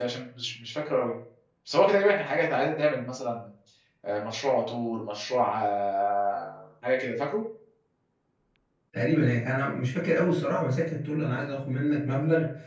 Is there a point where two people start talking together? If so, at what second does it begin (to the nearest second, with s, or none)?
none